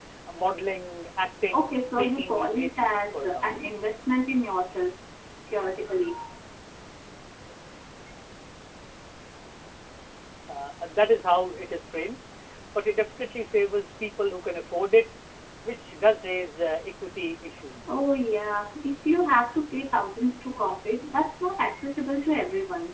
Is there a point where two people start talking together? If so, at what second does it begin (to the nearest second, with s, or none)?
2 s